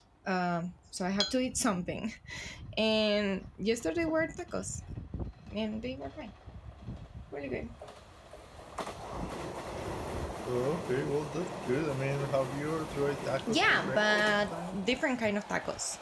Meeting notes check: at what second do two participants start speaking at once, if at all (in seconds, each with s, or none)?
13.5 s